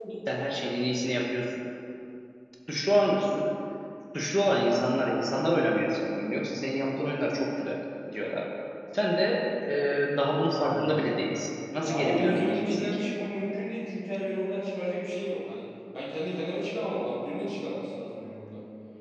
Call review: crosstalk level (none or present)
present